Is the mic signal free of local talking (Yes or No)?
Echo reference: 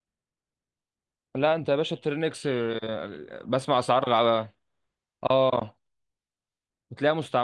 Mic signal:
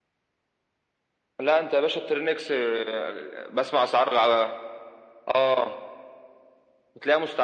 Yes